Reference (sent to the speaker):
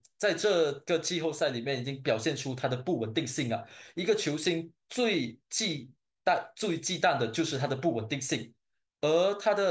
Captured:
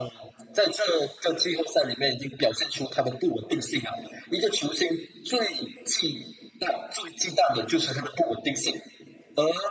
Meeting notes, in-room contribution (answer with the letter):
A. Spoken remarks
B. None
B